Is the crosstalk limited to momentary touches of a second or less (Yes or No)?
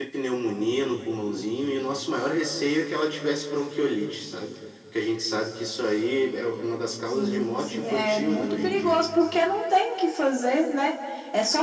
No